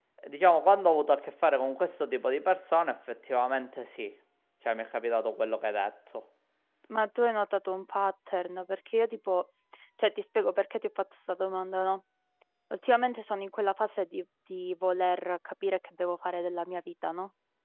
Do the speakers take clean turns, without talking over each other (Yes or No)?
Yes